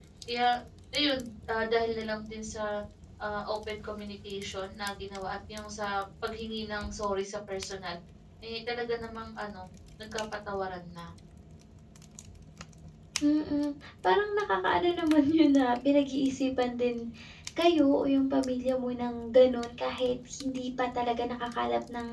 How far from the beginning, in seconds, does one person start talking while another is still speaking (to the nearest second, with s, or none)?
none